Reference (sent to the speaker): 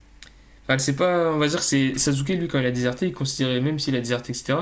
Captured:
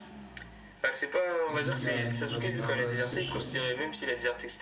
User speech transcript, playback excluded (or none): avec une, cara- une sorte de carapace, je sais pas quoi.